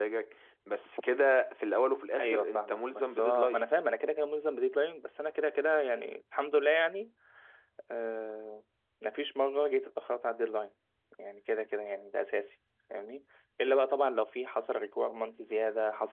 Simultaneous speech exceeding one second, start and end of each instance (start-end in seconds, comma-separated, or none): 2.2-3.6